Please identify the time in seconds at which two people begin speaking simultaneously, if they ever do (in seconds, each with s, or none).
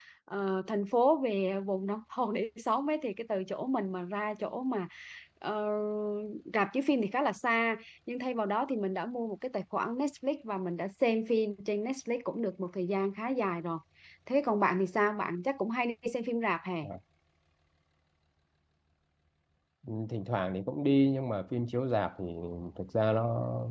none